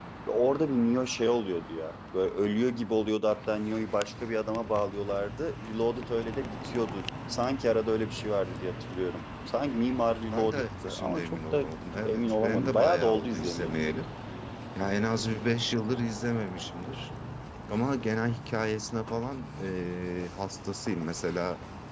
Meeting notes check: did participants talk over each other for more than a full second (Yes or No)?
Yes